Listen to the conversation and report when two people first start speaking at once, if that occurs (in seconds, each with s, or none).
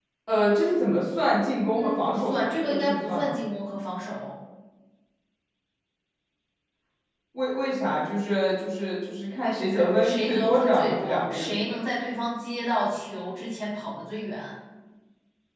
1.7 s